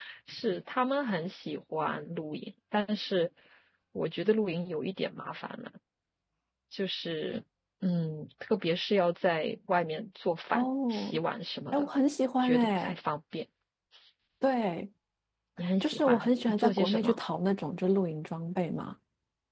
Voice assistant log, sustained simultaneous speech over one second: present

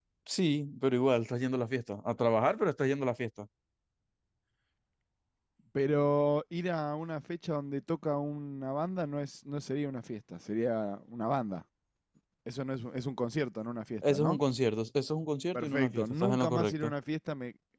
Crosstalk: present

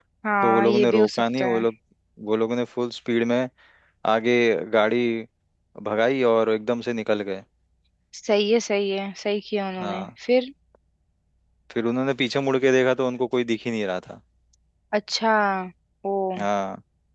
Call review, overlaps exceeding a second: present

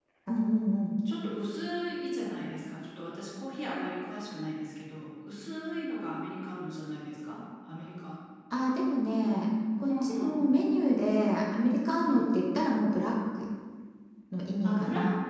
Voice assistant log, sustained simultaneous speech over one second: none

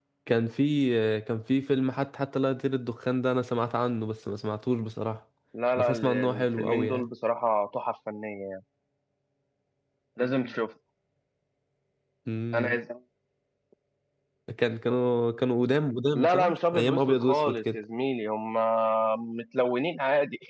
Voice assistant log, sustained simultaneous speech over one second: present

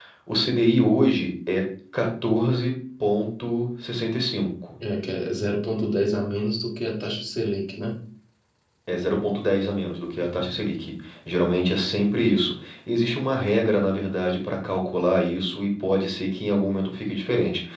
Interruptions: none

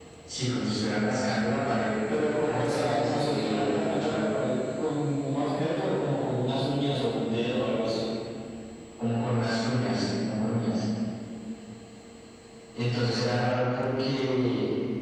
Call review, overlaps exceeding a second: present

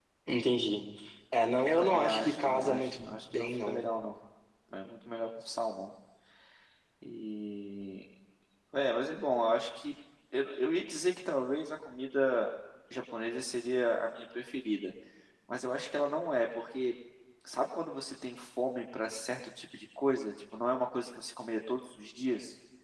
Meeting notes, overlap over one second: present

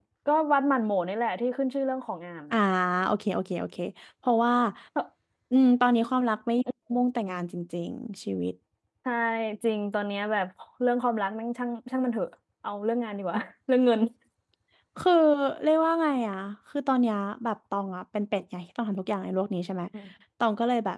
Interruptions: none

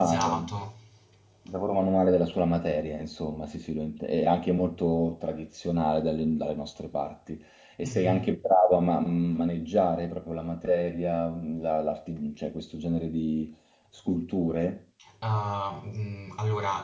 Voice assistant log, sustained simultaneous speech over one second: none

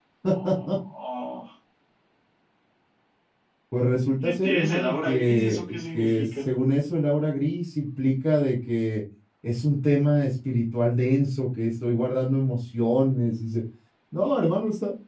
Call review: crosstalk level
present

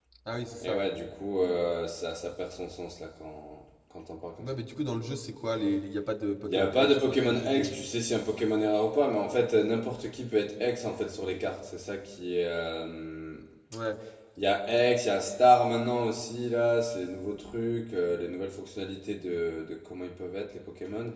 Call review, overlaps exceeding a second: present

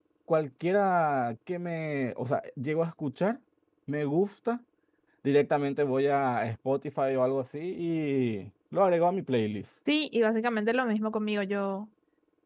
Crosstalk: none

